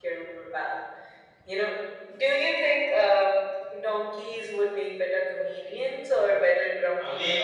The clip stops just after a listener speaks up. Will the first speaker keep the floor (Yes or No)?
No